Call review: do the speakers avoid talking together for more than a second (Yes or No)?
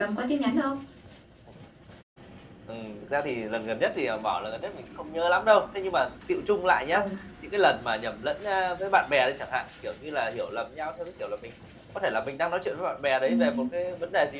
Yes